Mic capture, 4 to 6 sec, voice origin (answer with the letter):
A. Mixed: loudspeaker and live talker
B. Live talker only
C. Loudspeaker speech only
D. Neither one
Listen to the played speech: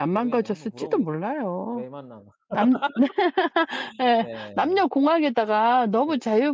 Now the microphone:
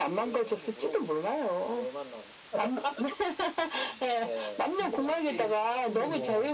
A